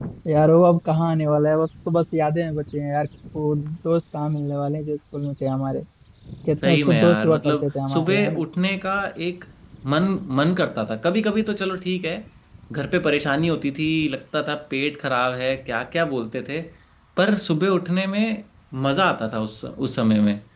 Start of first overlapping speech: 7 s

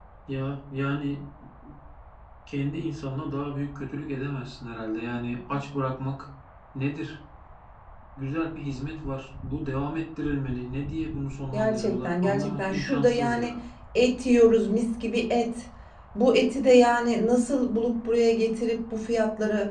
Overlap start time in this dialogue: 12 s

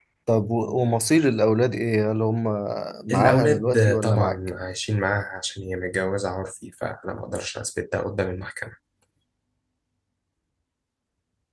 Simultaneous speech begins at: 3 s

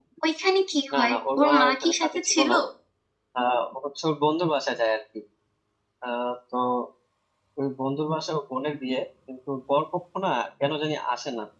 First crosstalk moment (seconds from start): 1 s

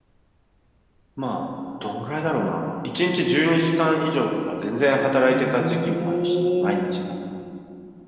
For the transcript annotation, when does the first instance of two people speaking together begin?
5 s

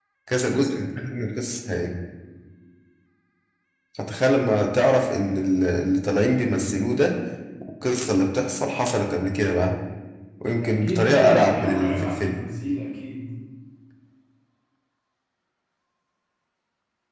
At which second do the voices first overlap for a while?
11 s

